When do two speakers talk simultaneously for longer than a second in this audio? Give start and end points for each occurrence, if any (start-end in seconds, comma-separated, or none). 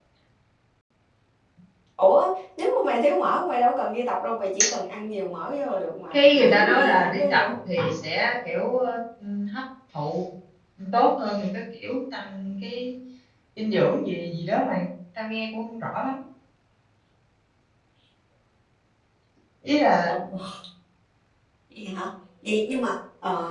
6.1-7.5